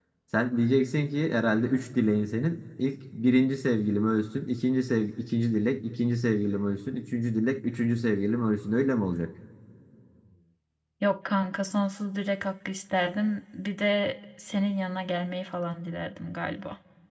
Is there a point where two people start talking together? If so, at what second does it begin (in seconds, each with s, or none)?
none